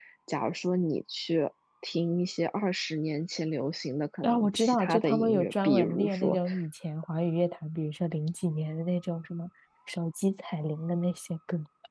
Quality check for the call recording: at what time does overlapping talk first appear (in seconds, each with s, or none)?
4.2 s